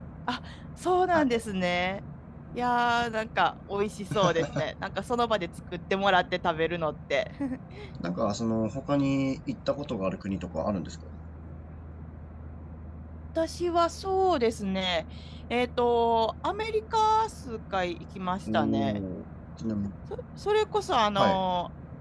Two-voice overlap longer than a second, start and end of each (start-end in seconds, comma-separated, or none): none